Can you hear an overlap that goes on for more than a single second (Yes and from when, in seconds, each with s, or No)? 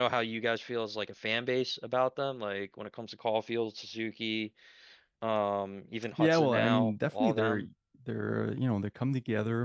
Yes, from 6.2 s